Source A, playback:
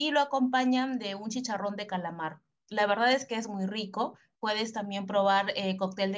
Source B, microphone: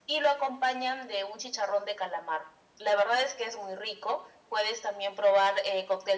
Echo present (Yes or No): Yes